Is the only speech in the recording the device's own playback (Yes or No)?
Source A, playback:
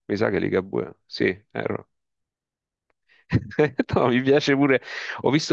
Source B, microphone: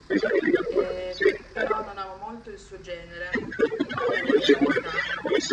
No